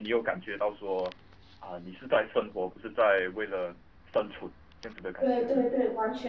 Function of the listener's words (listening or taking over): taking over